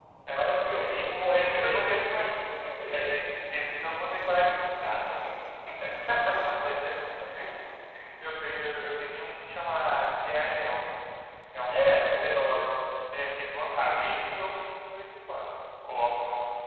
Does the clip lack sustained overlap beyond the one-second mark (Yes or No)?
No